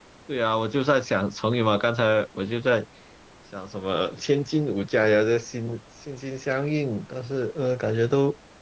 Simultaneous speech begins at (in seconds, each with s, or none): none